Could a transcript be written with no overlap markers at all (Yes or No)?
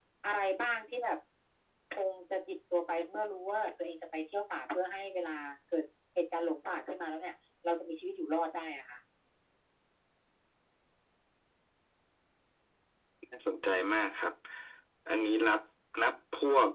Yes